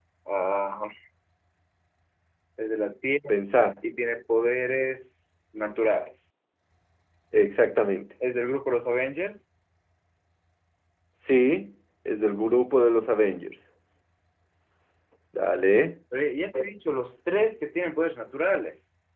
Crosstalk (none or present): none